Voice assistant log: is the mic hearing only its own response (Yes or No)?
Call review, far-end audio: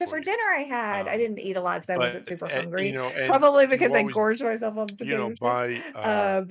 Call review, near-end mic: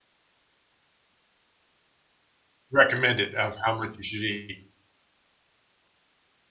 No